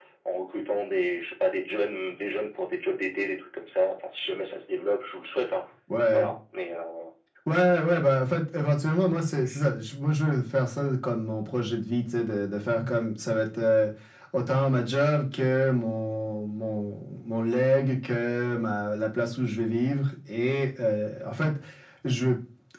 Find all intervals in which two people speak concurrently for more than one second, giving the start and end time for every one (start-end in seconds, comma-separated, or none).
none